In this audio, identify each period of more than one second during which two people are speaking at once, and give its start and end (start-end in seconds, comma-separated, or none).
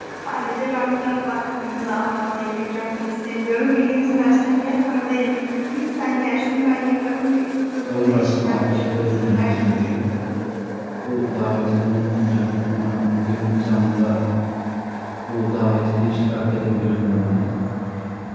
7.9-9.8